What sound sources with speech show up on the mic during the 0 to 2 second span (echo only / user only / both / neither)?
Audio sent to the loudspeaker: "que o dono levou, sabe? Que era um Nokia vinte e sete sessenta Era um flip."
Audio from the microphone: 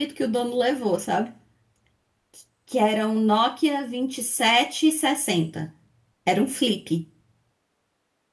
echo only